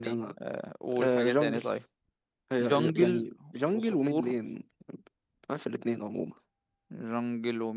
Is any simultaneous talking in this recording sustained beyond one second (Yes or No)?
Yes